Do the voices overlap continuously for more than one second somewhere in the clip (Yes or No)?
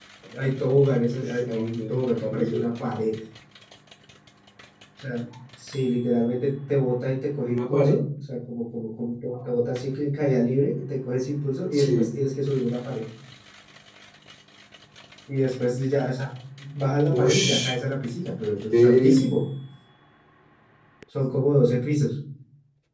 Yes